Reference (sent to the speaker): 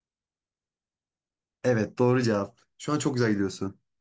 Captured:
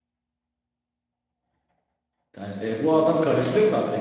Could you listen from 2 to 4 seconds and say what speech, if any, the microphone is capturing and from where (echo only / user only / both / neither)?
user only